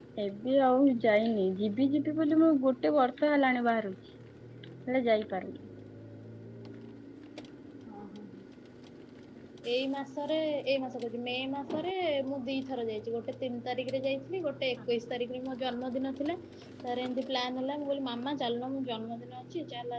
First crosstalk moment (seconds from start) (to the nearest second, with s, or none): none